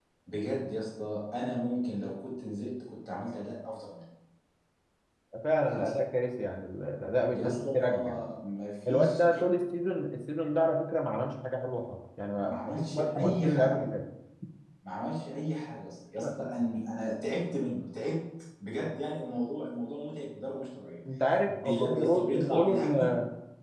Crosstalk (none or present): present